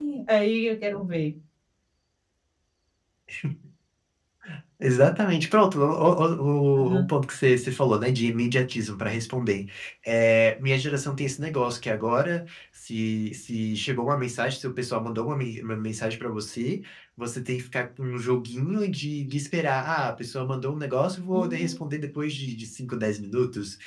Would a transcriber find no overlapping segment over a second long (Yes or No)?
Yes